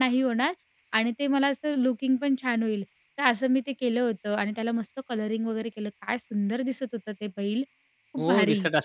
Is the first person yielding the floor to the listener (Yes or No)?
Yes